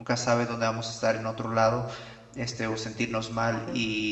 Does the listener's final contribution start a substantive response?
No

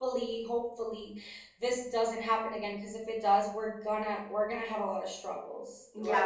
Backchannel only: No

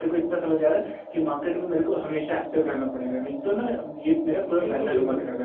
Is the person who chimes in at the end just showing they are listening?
No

